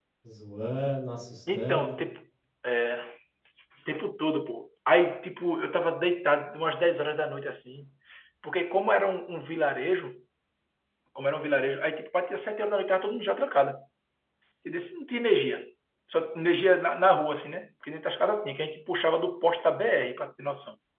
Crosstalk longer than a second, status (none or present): none